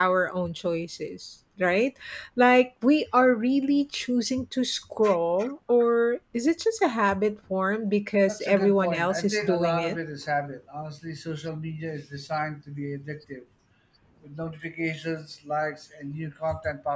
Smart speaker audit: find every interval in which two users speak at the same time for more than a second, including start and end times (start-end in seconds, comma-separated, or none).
8.3-10.0